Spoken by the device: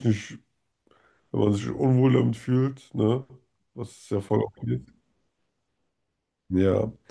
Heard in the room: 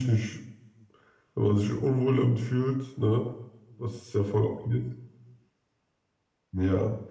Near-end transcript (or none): none